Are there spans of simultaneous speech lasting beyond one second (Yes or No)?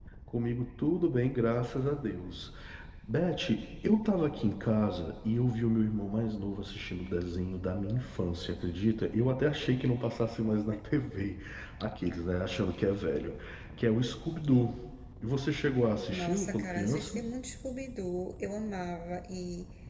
Yes